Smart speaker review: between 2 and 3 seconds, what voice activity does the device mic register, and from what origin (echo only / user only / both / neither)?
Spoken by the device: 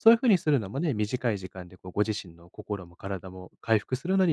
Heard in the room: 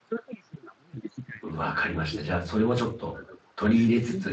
both